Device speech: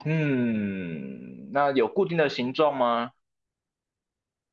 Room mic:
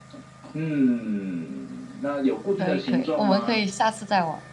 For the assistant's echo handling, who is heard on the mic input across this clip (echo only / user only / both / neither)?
both